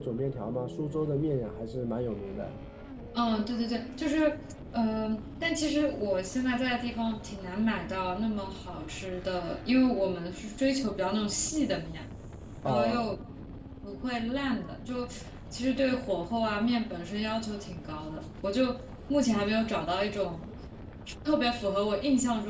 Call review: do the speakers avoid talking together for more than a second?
Yes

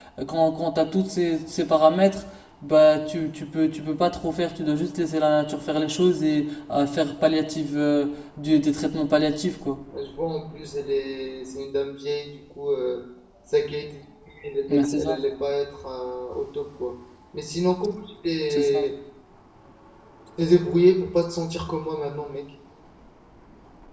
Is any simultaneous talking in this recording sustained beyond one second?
No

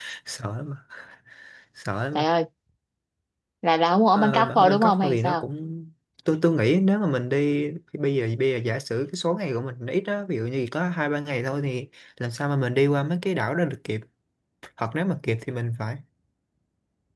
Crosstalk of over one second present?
Yes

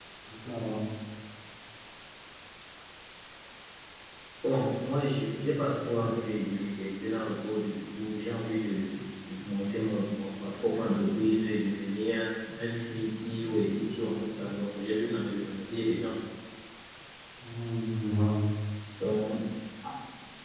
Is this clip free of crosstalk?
Yes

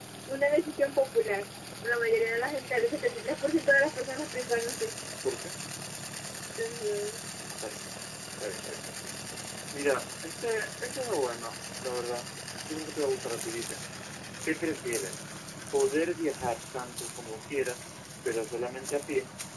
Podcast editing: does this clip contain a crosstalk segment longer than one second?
No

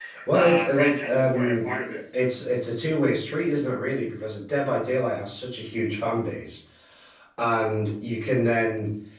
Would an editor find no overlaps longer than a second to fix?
No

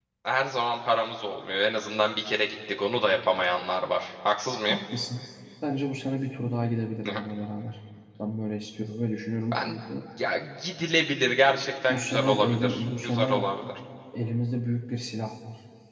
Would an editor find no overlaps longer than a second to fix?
No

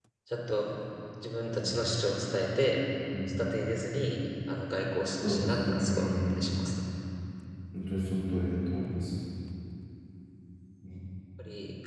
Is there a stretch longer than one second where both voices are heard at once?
Yes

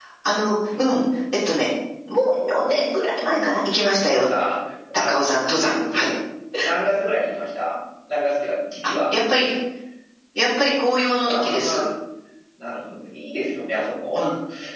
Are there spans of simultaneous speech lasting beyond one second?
No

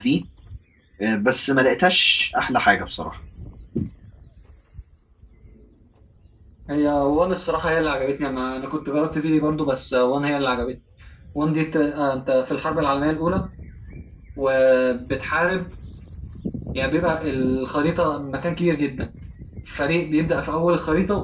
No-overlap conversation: Yes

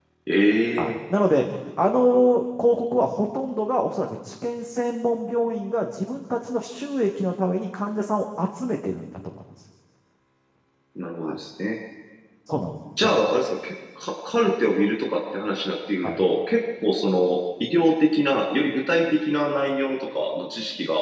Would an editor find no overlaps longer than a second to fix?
Yes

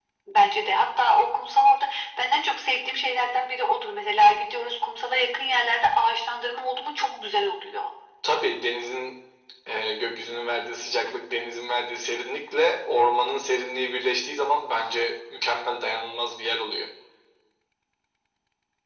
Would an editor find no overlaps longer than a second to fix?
Yes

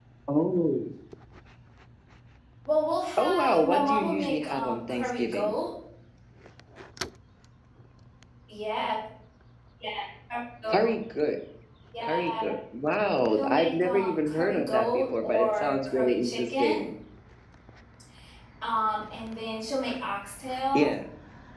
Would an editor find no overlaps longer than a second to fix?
No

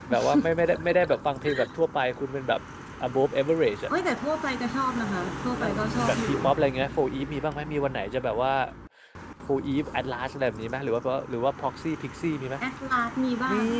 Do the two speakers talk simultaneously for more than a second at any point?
No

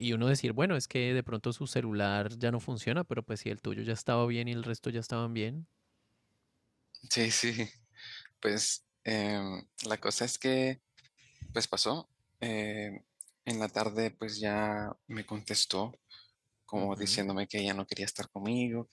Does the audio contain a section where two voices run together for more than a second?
No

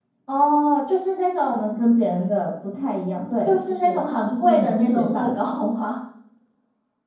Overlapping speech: Yes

